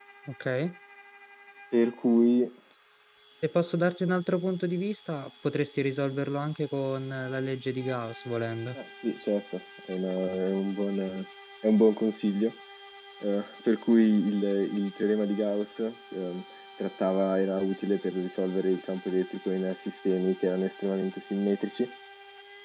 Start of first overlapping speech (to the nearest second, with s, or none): none